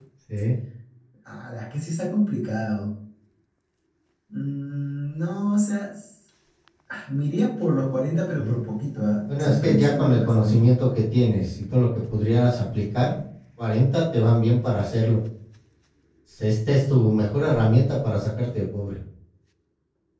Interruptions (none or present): present